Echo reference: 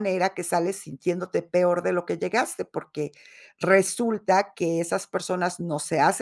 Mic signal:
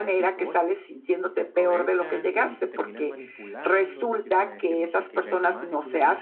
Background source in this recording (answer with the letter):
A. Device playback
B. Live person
B